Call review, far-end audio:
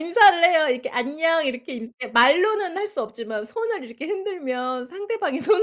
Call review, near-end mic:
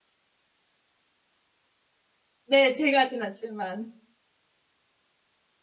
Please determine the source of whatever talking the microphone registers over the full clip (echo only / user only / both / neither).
user only